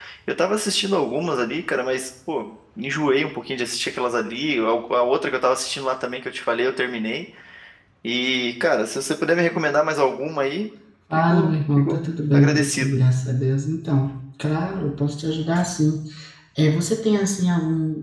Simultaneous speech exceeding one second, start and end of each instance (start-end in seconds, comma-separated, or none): 11.2-12.9